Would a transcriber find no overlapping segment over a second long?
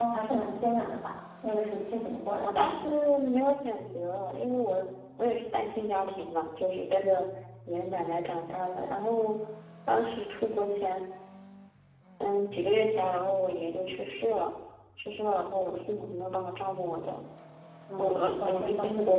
No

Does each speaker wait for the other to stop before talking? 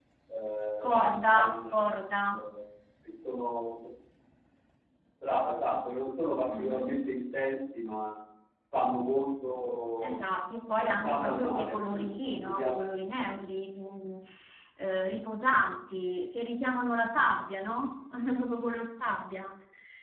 No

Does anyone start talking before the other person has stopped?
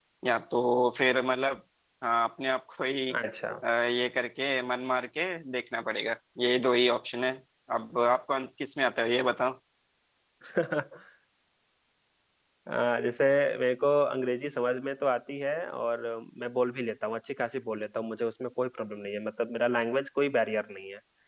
No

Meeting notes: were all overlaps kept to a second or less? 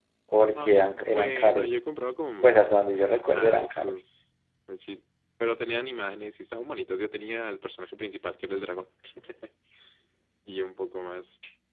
No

